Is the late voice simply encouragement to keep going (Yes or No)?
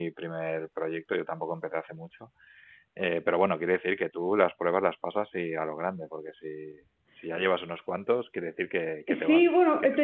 No